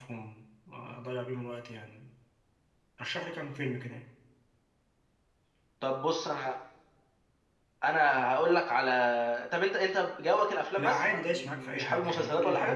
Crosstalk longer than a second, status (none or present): present